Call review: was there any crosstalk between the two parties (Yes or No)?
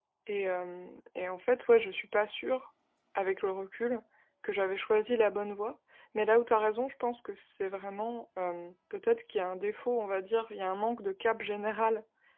No